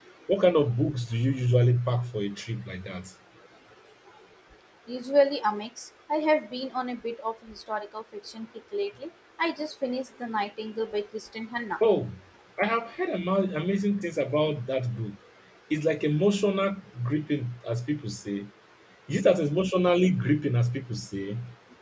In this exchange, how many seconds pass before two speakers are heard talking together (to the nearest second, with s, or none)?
none